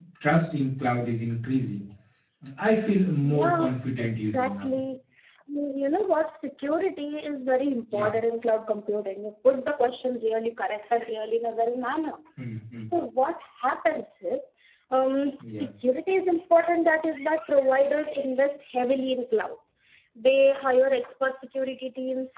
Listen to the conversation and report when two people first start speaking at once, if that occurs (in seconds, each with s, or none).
3.2 s